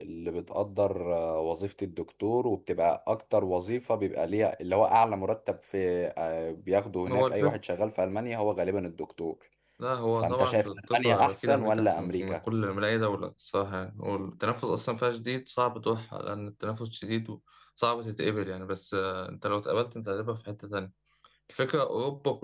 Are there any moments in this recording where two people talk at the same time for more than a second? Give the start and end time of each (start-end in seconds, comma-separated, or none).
10.2-12.4